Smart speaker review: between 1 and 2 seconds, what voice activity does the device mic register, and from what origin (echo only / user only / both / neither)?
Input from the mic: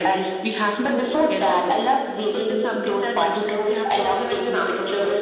echo only